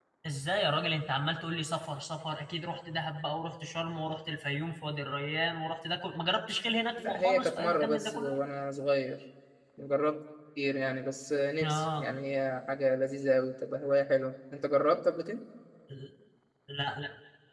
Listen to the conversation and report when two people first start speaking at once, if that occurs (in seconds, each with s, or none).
7.1 s